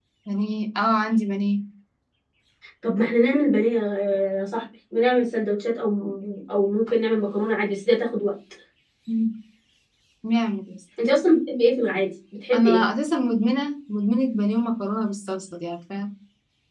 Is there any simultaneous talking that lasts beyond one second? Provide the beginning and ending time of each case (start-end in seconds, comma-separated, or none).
none